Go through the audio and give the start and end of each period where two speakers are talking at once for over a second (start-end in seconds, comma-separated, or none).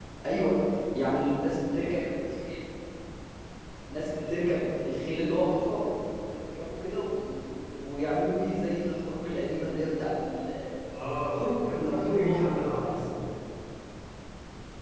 11.3-12.9